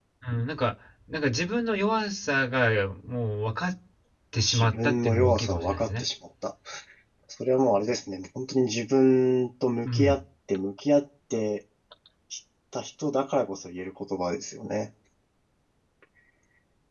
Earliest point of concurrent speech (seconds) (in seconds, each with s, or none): 4.5 s